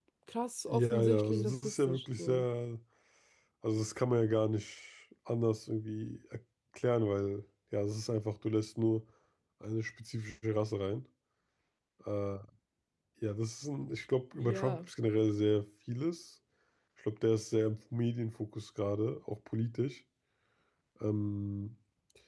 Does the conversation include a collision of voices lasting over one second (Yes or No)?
Yes